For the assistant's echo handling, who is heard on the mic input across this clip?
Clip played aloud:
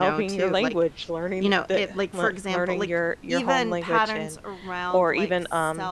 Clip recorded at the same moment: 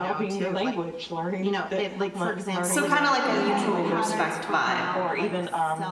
both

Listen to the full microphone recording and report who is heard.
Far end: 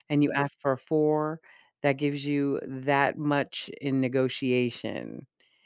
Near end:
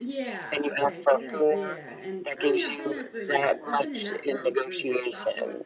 both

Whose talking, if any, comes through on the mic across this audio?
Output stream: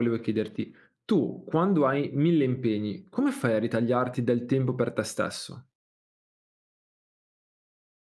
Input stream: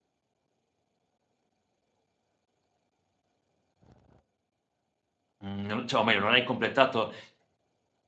user only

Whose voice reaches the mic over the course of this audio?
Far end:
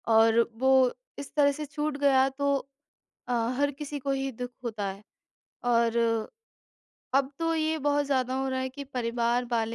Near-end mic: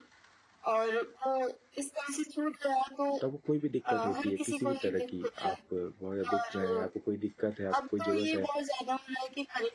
both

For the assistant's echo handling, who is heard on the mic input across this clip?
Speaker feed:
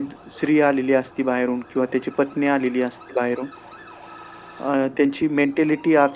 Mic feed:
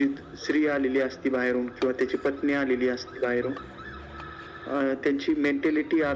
echo only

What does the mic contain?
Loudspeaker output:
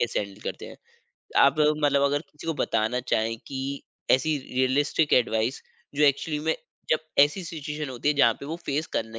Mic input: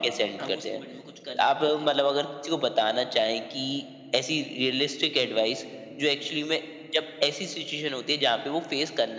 both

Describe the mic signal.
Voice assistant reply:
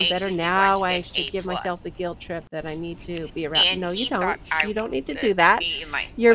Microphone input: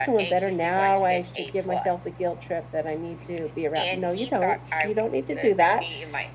echo only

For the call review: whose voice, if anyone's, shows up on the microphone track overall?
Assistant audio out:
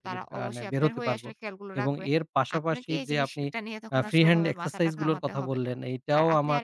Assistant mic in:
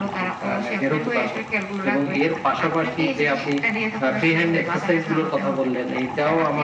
echo only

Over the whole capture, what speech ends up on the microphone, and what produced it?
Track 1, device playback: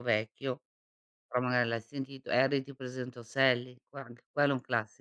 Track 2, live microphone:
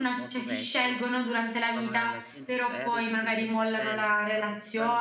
both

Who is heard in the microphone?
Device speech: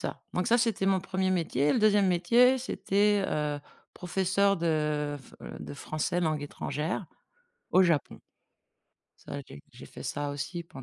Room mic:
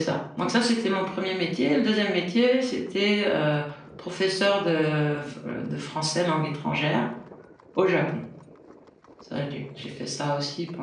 echo only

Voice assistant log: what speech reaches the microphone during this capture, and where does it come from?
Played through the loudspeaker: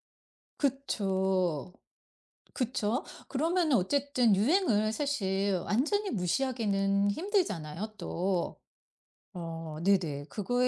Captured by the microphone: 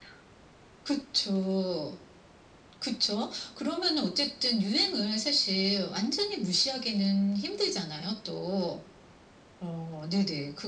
echo only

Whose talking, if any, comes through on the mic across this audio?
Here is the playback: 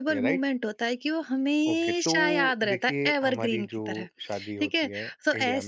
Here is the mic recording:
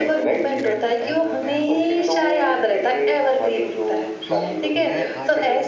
both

